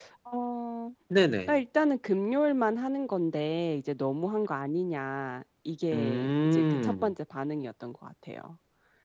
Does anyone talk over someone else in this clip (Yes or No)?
Yes